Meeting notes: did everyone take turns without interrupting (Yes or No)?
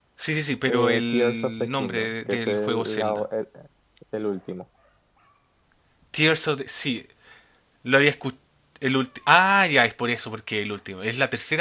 No